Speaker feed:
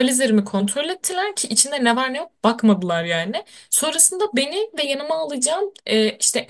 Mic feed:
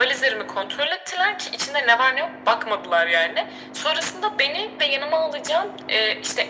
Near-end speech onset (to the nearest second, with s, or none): none